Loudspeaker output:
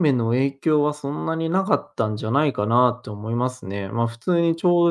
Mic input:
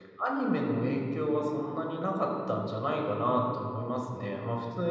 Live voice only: none

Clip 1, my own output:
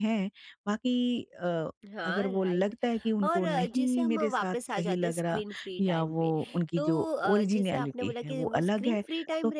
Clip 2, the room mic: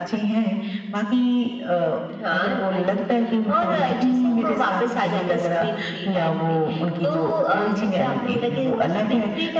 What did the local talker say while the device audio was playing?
none

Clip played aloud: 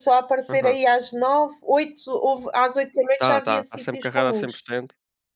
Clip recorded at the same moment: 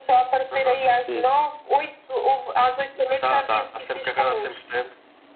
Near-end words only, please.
Sim, sim.

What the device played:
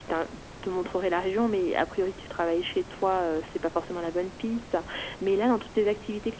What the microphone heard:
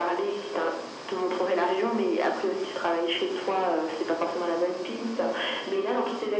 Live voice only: none

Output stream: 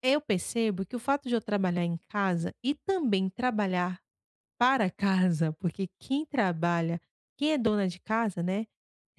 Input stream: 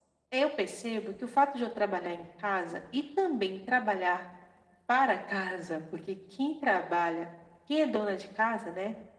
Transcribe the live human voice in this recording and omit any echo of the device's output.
none

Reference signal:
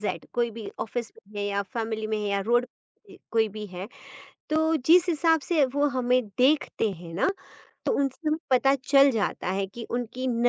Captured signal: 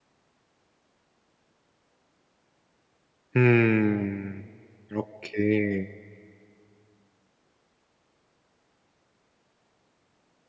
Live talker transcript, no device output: हुँ। ओके।

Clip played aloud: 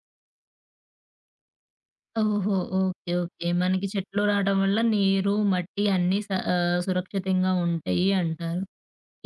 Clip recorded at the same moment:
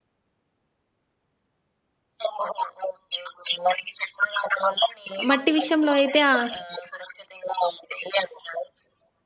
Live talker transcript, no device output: మట్టి విషయంలో అయితే ఆహ్,

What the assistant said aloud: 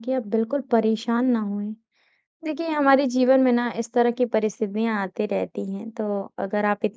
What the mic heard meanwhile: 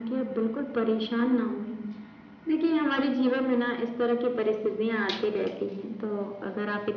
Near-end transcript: none

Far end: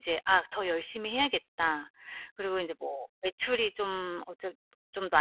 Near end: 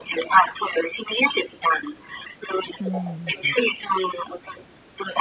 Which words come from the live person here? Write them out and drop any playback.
음 네.

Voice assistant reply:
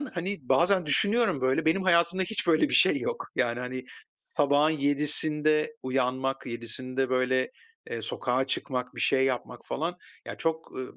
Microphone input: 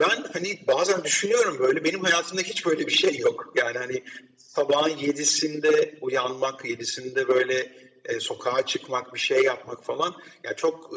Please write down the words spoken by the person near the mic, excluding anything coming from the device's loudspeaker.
none

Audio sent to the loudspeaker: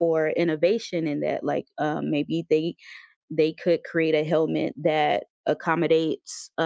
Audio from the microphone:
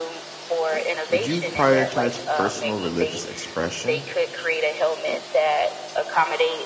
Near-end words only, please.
Would you prioritize personal religious expression

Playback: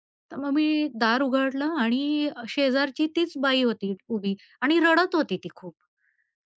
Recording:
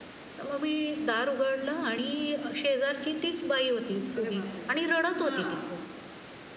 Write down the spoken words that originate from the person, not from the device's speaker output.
अरे बापरे! हां.

